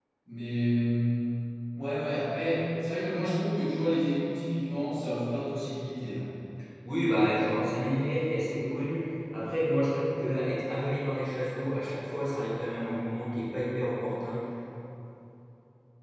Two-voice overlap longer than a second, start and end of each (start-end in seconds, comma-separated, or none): none